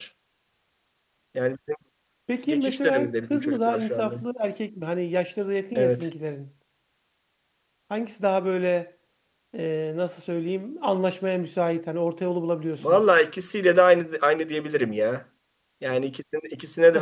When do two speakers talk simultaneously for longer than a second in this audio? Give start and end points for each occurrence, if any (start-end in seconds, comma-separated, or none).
2.5-4.1